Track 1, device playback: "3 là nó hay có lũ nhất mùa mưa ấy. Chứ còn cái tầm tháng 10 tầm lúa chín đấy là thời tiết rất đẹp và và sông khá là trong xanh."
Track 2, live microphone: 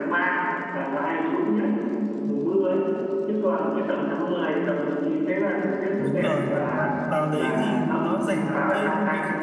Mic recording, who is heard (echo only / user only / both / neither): both